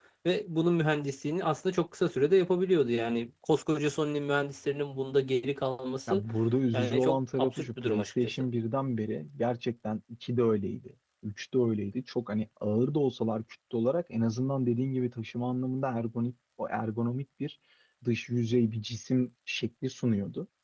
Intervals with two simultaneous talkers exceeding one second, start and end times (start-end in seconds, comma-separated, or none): 6.7-8.4